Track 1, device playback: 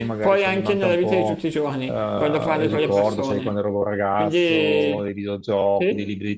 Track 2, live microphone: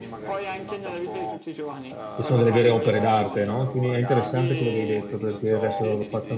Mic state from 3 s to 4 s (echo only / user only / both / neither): both